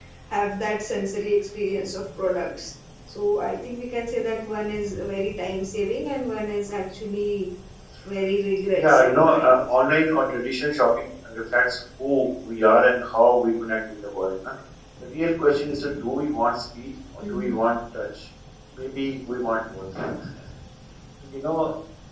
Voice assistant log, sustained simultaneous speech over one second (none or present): present